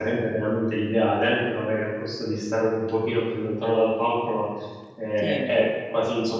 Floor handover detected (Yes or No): No